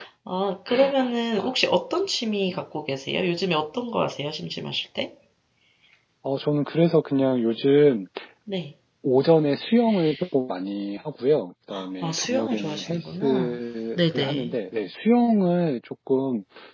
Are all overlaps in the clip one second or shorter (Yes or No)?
No